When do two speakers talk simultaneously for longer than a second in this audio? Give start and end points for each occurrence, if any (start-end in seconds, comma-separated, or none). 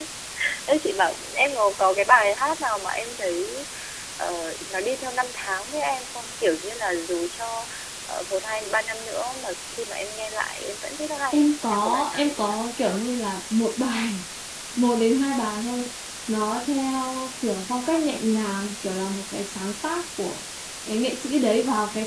11.3-12.6